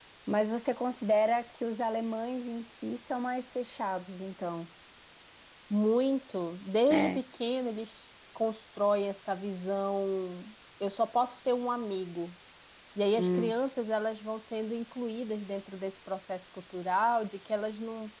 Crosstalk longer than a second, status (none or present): none